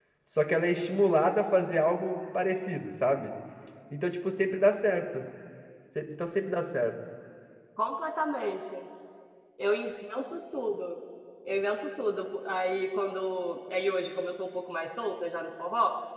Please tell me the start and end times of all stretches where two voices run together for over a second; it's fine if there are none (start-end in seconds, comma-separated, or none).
none